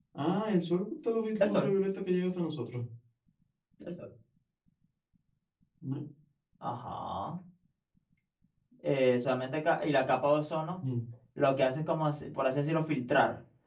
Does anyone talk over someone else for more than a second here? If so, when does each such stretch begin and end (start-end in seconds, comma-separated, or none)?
none